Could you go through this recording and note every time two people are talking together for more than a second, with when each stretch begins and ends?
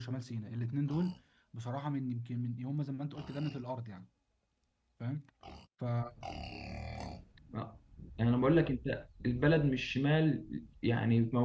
none

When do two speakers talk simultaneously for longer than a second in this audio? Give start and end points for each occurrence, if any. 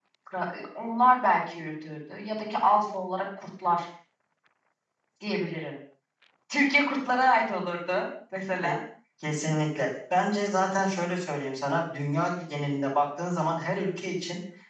none

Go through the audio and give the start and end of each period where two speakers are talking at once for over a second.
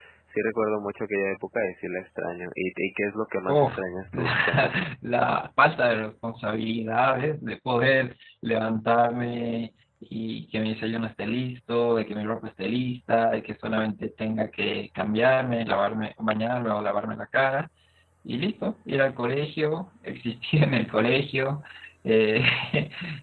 3.5-4.8

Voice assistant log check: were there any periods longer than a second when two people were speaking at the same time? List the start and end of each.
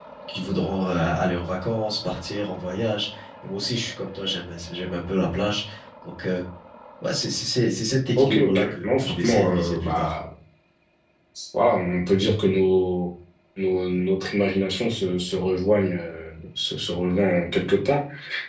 8.2-10.1

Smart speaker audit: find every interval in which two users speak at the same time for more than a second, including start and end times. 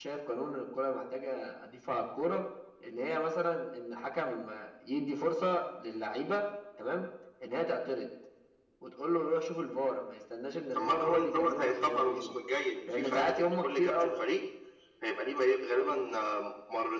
10.7-12.3, 12.9-14.2

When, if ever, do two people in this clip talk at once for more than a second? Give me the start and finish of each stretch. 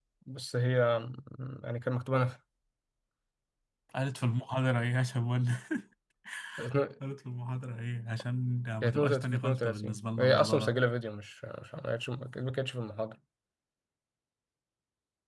8.8-10.7

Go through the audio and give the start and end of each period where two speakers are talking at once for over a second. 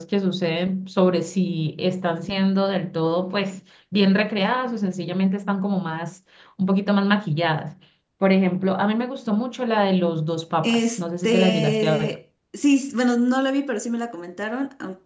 10.6-12.2

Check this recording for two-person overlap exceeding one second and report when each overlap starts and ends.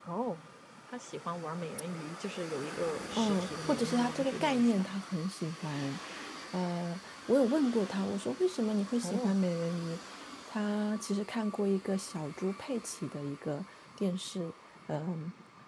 3.2-4.9

